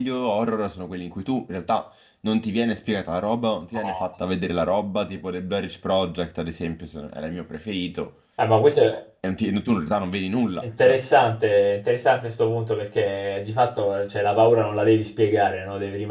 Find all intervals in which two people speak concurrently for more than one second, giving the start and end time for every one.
none

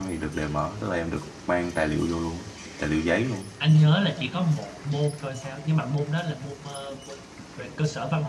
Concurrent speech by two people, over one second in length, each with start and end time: none

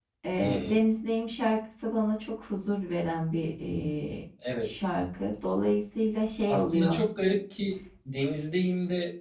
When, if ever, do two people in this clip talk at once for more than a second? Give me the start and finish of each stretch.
none

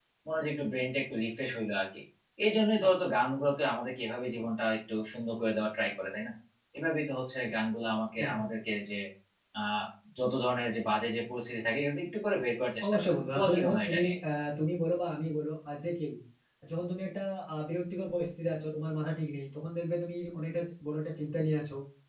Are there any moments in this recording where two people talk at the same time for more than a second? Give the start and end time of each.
12.8-14.1

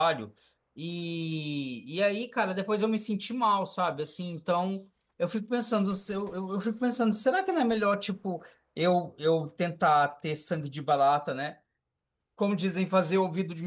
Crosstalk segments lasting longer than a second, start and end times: none

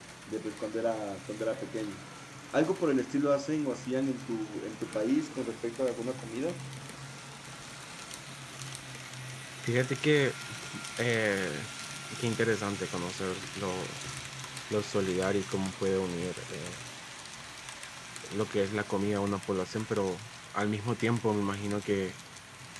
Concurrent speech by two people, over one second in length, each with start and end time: none

